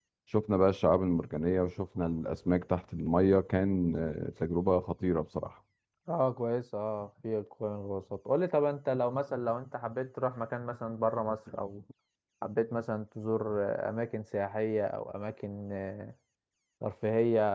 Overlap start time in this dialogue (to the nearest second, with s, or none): none